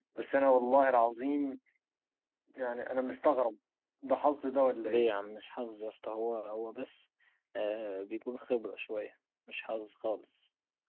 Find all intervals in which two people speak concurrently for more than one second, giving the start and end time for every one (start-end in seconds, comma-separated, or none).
none